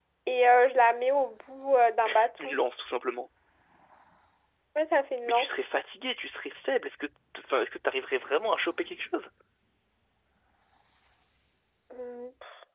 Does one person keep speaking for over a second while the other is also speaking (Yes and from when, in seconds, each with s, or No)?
No